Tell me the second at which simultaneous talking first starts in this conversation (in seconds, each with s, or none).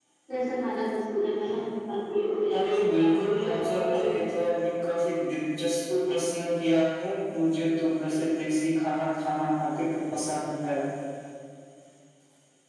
2.5 s